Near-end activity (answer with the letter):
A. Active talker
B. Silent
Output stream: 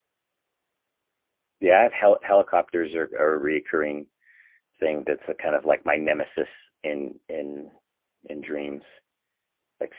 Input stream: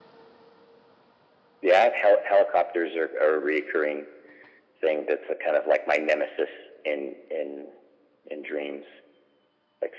B